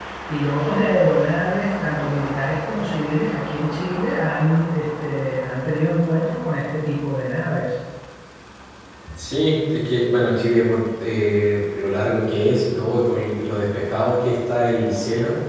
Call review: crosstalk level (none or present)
none